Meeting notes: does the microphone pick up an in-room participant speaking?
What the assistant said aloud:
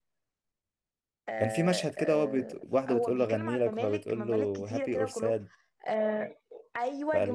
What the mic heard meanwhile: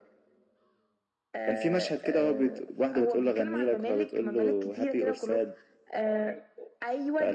No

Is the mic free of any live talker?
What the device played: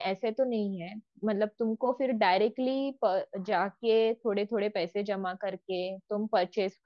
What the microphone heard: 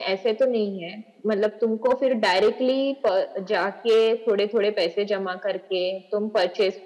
Yes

